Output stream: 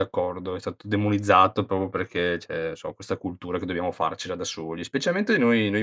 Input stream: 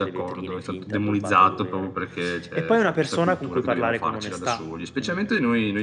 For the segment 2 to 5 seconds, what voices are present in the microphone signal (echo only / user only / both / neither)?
both